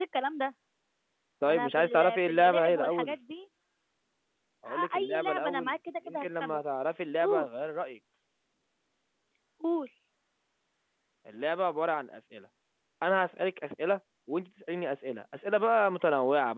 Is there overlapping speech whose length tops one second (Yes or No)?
Yes